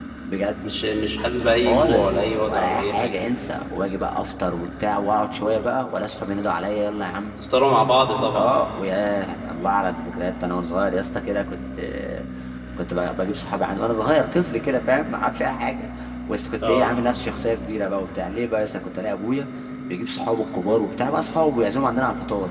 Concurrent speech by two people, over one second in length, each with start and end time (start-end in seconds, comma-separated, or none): 1.5-3.2